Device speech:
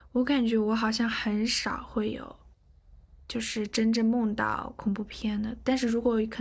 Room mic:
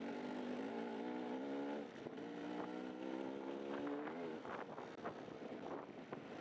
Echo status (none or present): none